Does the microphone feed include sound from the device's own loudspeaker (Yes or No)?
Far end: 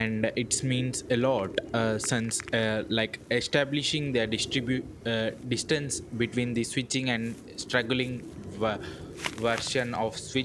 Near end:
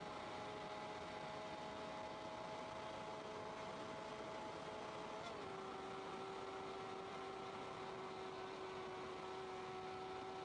No